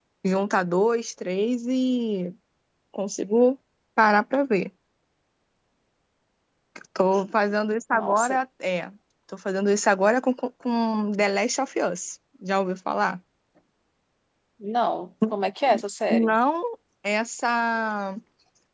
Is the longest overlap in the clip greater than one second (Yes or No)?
No